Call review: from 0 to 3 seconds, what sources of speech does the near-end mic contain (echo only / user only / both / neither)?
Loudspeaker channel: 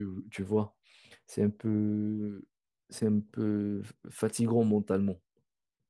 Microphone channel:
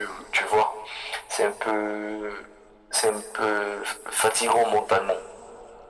echo only